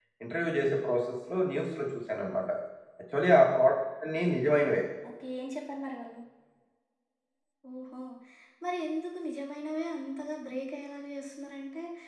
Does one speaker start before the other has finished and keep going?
No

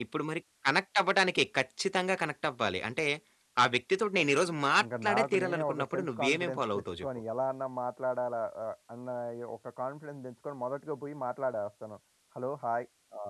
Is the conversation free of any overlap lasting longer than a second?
No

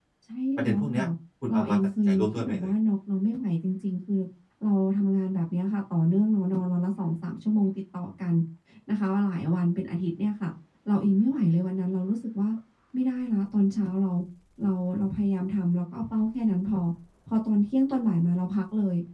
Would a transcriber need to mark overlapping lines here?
Yes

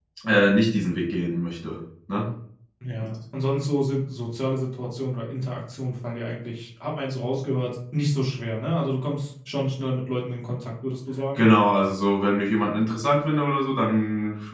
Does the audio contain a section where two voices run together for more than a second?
No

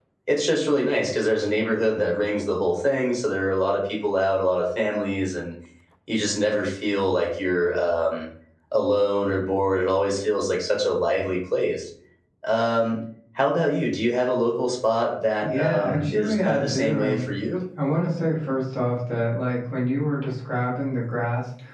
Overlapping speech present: Yes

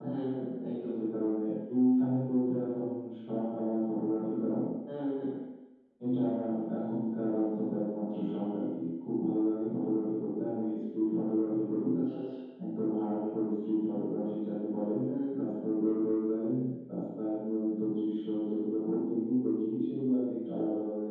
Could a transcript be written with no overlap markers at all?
Yes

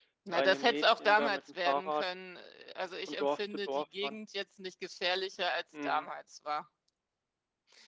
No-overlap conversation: No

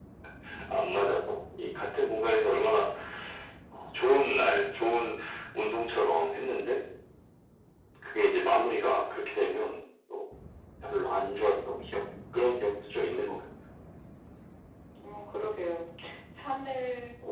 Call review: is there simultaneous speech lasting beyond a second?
No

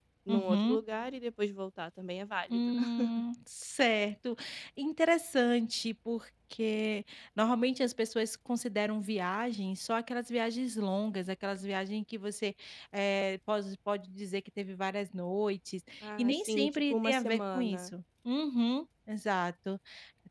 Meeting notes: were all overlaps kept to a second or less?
No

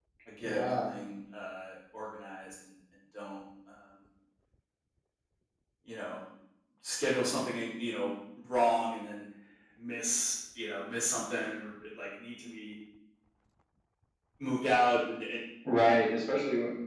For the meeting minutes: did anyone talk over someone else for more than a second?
No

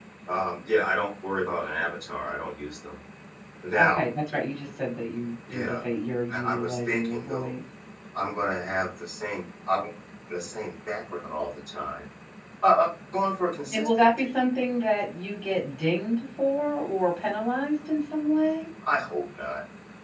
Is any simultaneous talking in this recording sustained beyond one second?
Yes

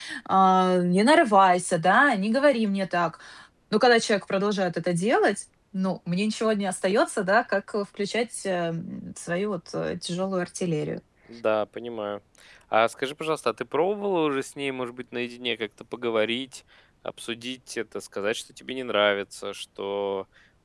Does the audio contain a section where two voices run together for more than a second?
No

